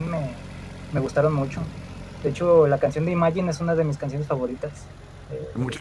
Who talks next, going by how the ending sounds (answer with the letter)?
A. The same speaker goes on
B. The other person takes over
B